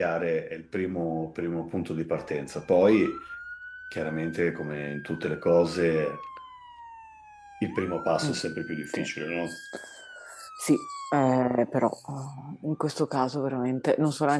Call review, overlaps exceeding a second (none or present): none